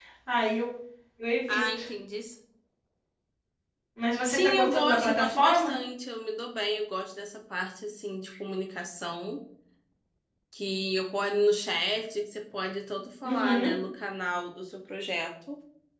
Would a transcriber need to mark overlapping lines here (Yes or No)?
Yes